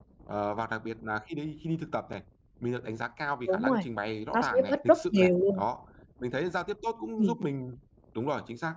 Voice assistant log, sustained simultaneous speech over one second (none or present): present